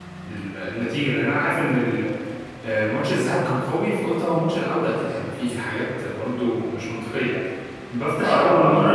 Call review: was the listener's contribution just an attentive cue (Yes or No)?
Yes